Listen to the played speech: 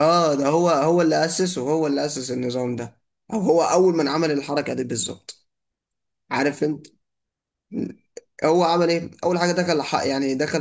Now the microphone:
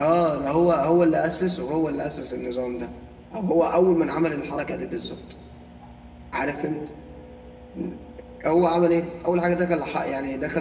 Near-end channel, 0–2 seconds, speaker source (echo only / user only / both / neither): echo only